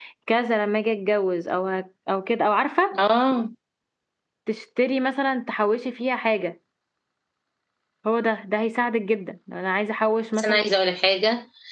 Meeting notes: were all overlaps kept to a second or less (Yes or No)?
Yes